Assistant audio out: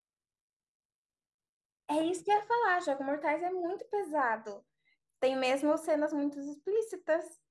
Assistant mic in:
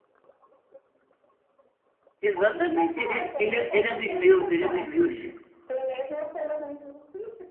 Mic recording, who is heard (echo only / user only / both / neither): both